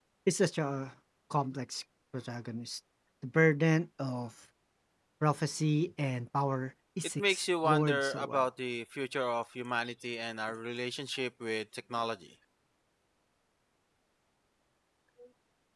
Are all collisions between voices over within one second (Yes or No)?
No